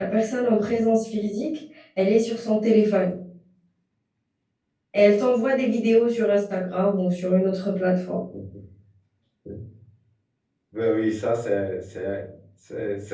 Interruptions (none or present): none